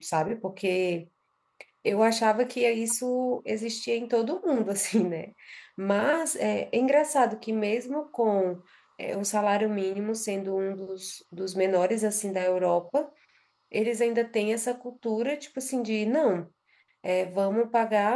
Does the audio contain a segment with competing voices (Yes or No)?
No